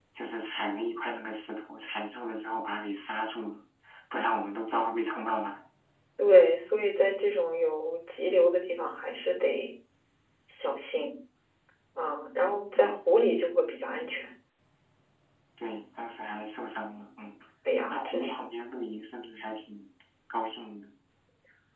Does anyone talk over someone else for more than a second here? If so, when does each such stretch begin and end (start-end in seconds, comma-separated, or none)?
none